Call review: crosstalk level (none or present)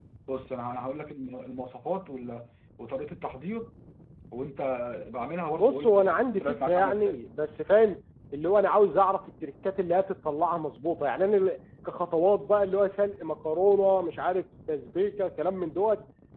present